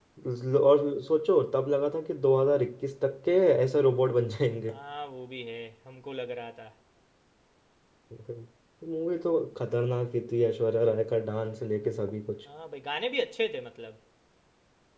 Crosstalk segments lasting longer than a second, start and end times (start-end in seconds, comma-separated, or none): none